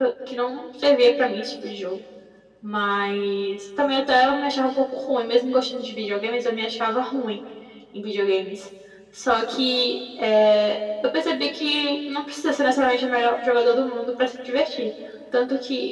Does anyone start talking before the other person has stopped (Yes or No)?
No